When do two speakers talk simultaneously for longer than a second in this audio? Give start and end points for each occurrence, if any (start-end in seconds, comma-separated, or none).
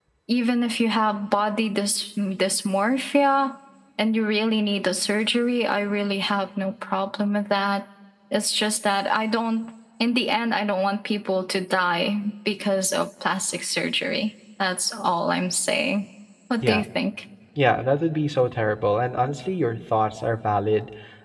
none